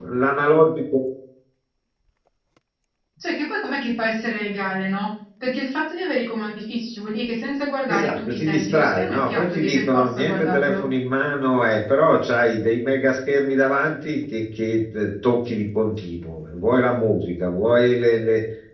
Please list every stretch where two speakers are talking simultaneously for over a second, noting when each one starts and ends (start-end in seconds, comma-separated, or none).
7.9-10.8